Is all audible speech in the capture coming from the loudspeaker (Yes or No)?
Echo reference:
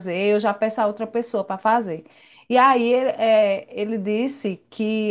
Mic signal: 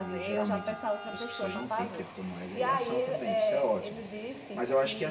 No